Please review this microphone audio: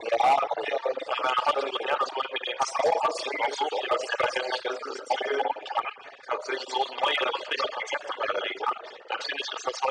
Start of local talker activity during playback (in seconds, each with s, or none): none